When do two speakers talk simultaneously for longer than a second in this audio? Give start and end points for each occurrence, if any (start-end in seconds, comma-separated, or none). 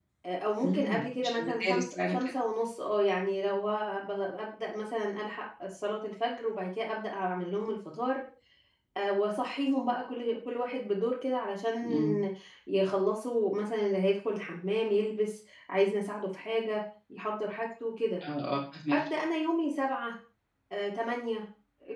0.6-2.3